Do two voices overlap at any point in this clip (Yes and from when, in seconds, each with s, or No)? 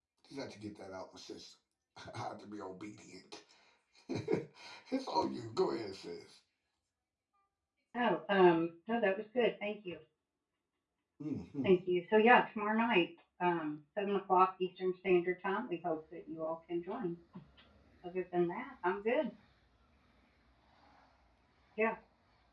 No